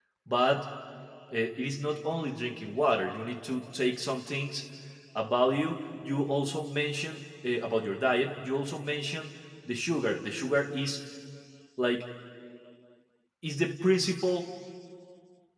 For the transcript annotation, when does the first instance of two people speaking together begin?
none

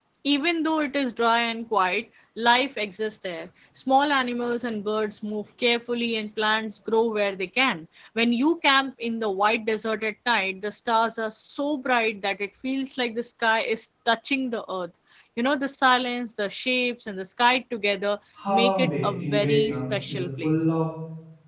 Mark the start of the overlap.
18.4 s

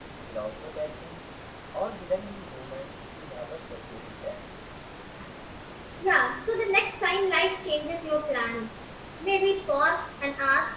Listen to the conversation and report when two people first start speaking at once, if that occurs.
none

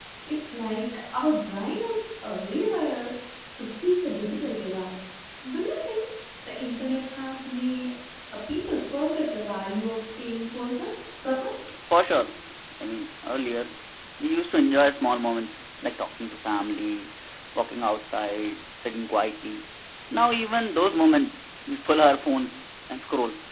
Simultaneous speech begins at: none

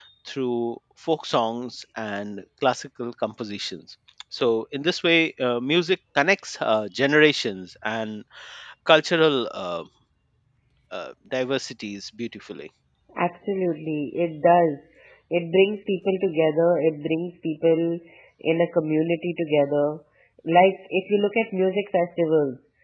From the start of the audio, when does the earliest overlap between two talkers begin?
none

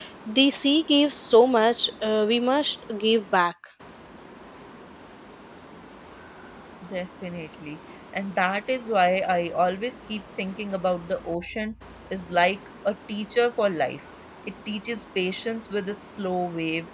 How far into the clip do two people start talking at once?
none

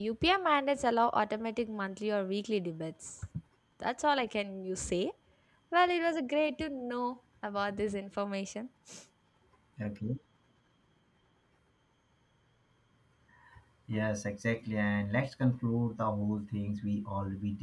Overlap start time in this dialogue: none

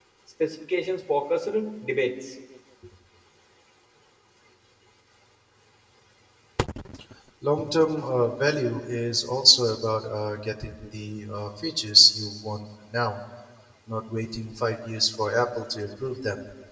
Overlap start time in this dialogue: none

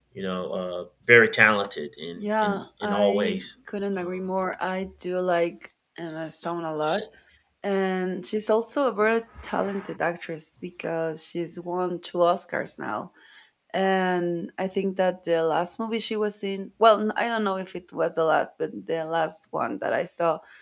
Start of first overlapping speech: 2.2 s

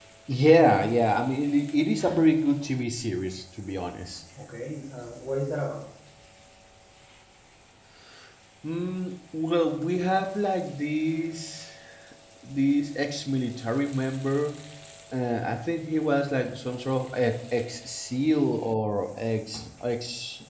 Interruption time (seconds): none

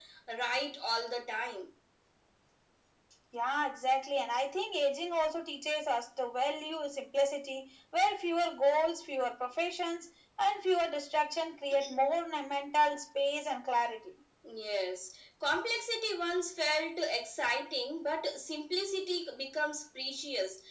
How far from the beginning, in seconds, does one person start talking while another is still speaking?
none

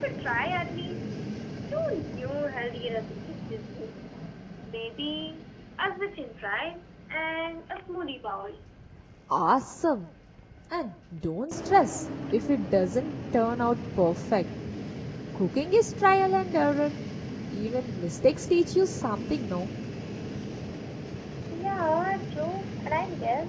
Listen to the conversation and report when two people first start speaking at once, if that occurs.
none

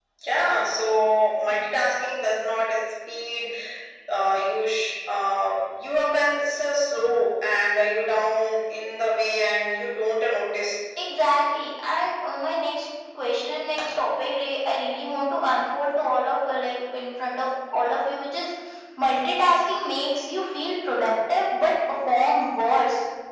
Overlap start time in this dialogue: none

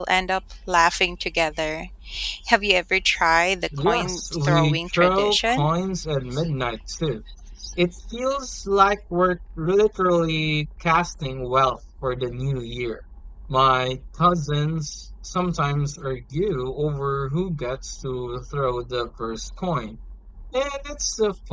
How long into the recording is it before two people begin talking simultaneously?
3.7 s

